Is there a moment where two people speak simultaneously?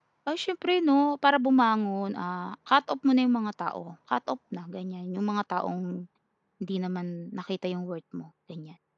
No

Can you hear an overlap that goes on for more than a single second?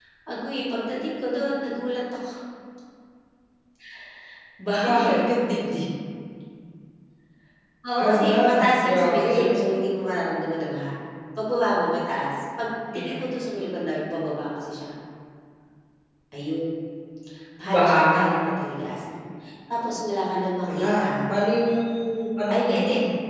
Yes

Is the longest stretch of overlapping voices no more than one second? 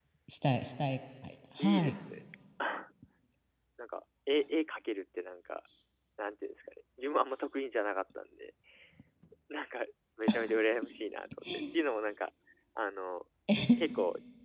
Yes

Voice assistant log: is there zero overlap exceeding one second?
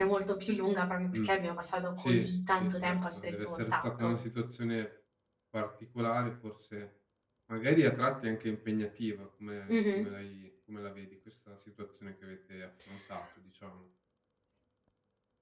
No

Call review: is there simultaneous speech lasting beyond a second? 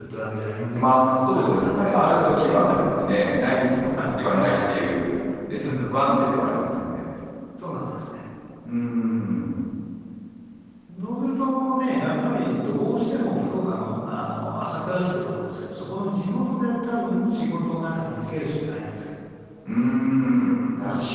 Yes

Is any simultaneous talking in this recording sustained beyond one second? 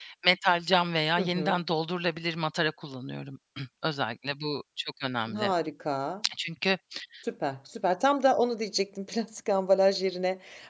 No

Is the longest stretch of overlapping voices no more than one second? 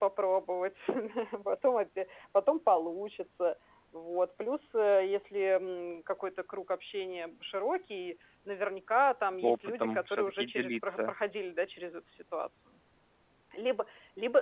No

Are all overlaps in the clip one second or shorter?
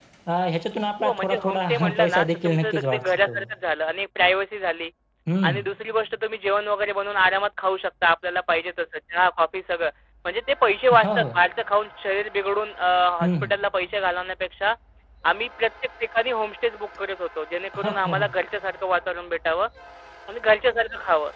No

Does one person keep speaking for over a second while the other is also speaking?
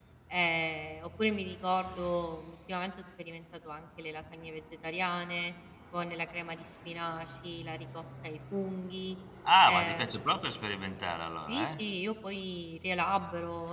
No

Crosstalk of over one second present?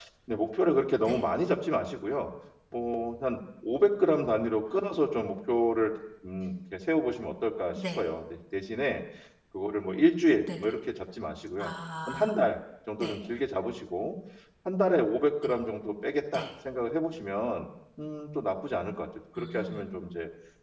No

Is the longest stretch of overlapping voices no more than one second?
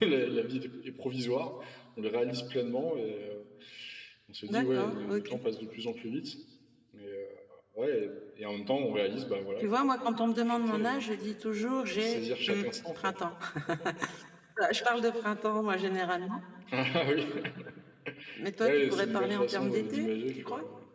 No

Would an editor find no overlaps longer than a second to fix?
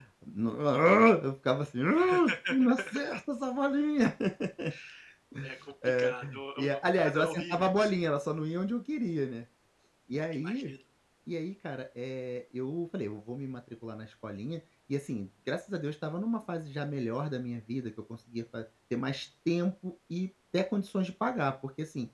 No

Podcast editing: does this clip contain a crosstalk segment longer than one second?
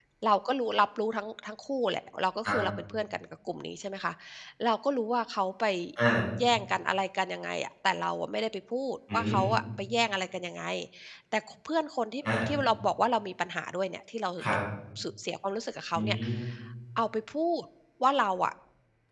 No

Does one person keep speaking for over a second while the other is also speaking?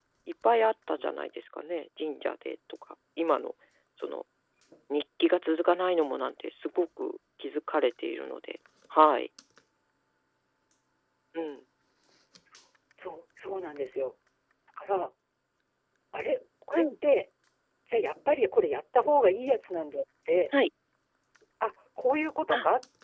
No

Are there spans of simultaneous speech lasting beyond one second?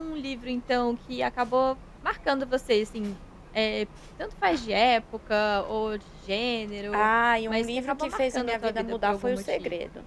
Yes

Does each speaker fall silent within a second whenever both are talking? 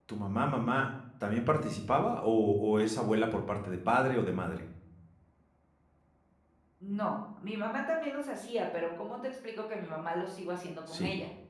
Yes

